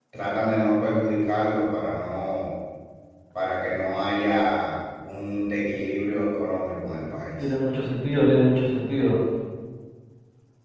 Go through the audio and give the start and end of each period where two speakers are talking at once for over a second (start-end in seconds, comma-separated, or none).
none